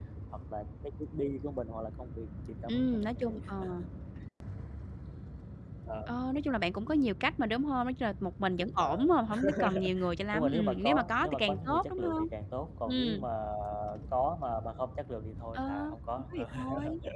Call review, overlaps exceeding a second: present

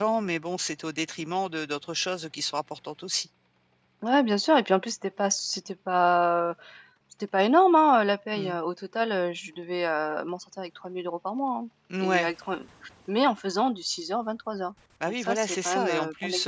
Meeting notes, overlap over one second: present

